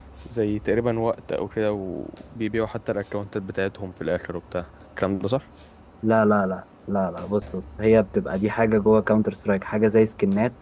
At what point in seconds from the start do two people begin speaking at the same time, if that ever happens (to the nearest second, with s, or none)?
none